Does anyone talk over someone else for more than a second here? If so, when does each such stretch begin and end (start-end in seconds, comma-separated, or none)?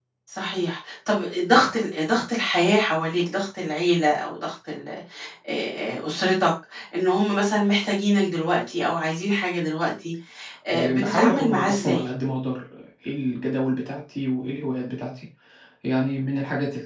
10.7-12.0